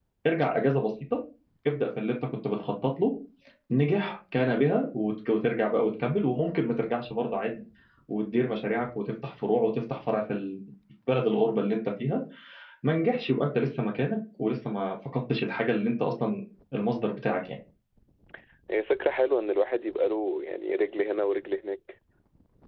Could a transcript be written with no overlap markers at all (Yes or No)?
Yes